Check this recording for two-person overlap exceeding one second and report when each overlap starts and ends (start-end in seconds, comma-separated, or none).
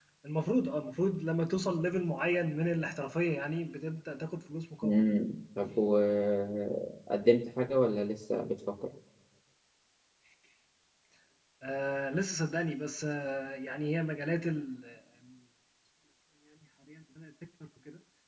none